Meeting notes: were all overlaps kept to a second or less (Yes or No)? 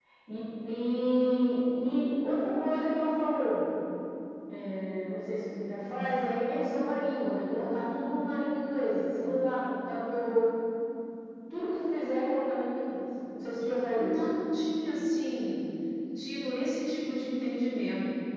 Yes